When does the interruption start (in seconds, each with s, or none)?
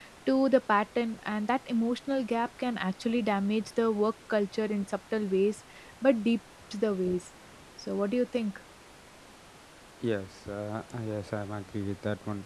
none